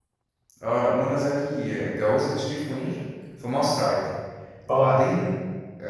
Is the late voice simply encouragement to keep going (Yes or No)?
Yes